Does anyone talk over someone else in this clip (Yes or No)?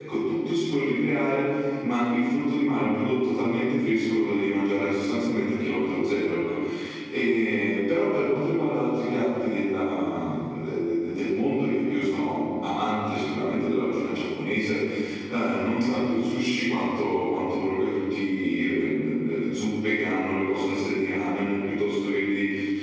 No